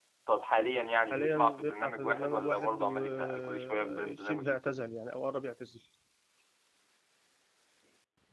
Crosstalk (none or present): present